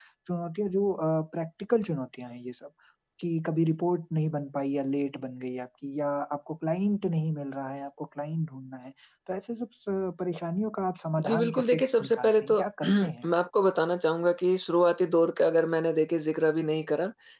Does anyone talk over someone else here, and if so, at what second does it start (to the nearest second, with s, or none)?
11 s